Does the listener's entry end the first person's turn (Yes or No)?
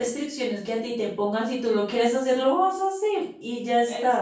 Yes